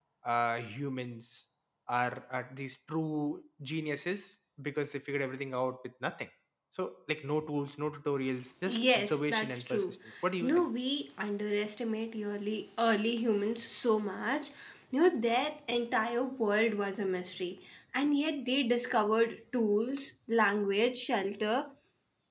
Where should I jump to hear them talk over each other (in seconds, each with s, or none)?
8.7 s